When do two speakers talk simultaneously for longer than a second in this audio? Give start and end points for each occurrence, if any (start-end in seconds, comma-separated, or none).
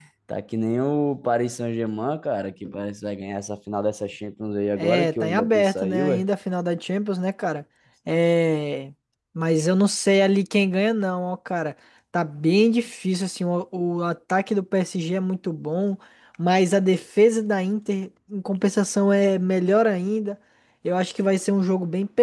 4.7-6.2